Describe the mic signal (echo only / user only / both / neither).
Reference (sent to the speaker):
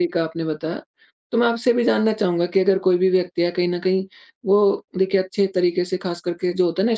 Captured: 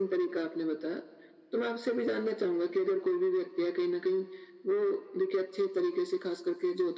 echo only